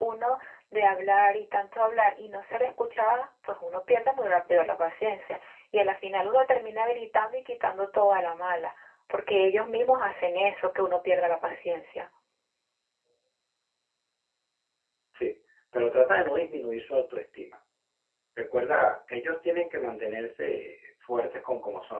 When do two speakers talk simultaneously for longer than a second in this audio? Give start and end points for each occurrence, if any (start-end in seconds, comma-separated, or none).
none